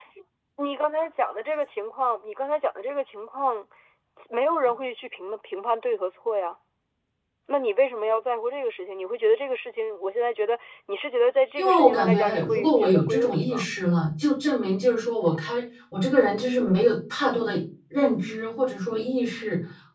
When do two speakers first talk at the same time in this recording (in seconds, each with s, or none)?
11.6 s